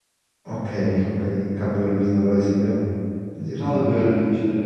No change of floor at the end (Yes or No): No